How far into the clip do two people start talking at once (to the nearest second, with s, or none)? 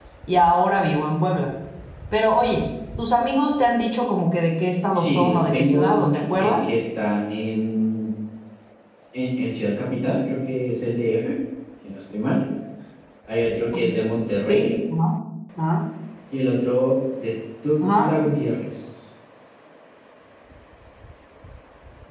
5 s